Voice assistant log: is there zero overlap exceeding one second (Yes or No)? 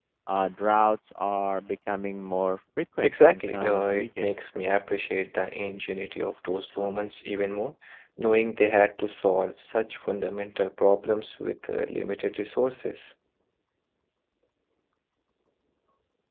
No